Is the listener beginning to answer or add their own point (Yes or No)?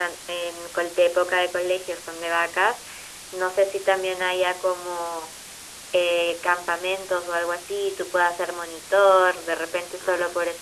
No